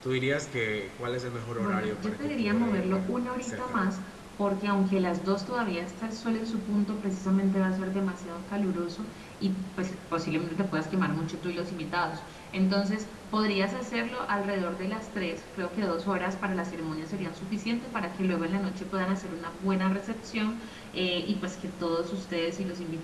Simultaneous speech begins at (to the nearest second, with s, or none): 2 s